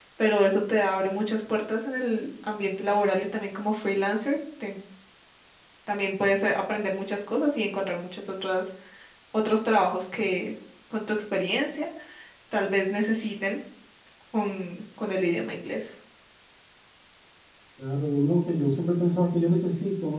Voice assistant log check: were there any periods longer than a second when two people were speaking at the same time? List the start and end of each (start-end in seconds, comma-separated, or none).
none